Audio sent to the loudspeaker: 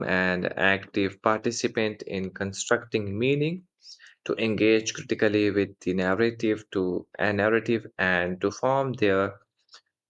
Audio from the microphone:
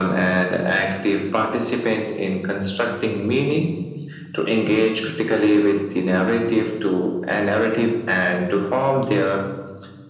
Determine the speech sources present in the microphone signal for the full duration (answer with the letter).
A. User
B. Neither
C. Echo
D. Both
C